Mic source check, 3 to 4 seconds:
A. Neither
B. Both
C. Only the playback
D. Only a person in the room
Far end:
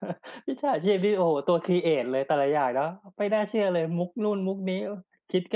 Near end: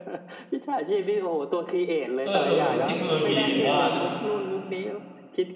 B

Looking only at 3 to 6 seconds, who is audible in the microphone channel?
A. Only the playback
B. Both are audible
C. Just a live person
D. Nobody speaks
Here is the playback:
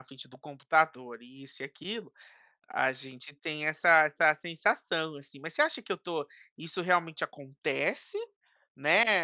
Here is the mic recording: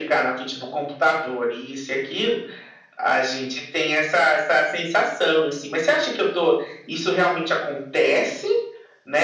A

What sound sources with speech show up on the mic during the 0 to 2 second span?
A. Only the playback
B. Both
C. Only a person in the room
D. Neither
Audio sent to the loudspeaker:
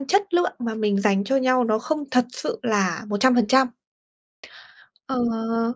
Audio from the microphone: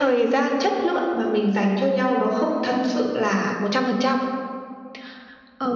A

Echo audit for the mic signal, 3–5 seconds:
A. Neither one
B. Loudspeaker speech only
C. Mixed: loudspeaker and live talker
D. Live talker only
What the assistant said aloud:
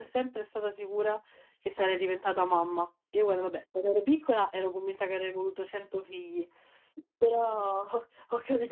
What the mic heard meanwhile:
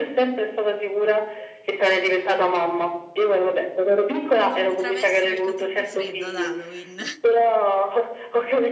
C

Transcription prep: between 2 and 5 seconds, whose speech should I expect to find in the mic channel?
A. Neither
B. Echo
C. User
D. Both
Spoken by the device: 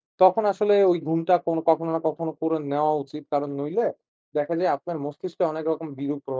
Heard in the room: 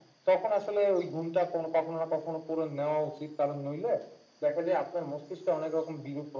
B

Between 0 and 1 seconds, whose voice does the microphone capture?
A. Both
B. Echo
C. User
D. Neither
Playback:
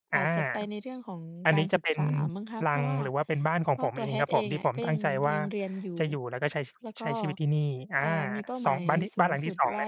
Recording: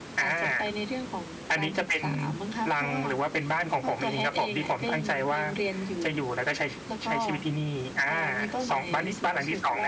B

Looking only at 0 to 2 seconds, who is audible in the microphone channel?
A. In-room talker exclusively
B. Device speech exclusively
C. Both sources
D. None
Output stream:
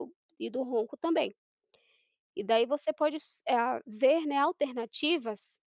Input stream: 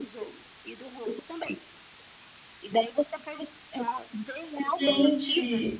B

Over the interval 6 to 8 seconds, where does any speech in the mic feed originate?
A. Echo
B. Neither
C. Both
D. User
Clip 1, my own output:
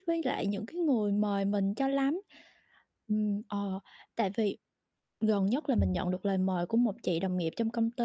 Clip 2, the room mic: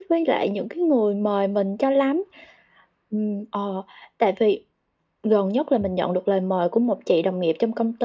A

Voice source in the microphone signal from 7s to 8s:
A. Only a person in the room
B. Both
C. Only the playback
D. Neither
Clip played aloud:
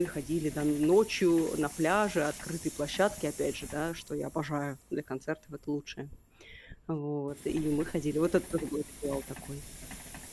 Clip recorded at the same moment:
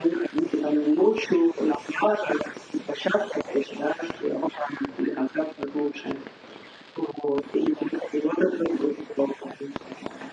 C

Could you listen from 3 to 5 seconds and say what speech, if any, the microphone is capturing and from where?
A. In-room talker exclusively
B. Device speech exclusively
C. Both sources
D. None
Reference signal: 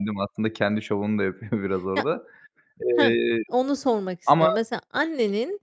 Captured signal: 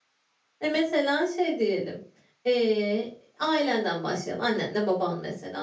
A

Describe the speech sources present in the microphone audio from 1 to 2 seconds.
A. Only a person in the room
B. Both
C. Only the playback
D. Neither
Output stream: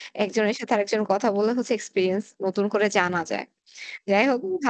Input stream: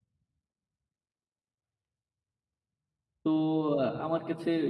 D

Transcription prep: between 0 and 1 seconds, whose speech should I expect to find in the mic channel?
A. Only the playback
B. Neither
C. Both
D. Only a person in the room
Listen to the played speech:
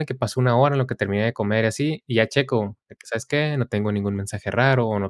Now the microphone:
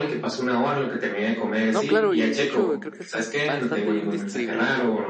A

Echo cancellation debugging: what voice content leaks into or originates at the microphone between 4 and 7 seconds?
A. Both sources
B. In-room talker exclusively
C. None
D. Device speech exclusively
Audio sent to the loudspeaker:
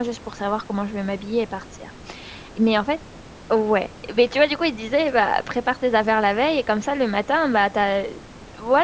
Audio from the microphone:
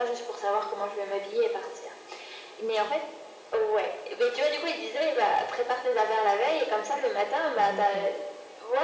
D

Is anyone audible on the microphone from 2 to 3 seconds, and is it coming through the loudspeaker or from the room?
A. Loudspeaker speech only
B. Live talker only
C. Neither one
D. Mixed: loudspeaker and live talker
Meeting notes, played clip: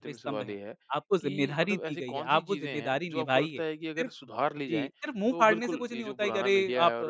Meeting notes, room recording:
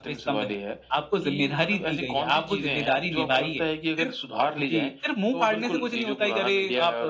A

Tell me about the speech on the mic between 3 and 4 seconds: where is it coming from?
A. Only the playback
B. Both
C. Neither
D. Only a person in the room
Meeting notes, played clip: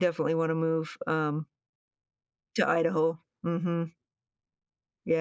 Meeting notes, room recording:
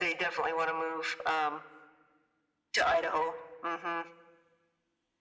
A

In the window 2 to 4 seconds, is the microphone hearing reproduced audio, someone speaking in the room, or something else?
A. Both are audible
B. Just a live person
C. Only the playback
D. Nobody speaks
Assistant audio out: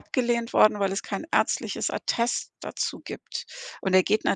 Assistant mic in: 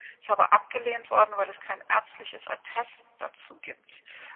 C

